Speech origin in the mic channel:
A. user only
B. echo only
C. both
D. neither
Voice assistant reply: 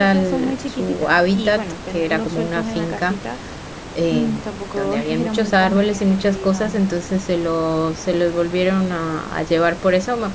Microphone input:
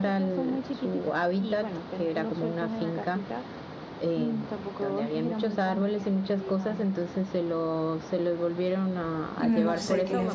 C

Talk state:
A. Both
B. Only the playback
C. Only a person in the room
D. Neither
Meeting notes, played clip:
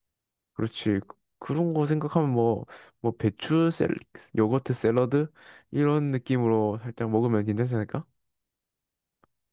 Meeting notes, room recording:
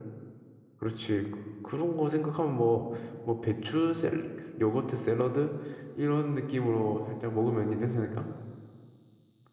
B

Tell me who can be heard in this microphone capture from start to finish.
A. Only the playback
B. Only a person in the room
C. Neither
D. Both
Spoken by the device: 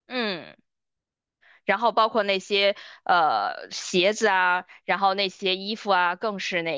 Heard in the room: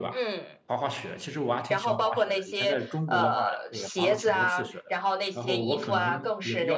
D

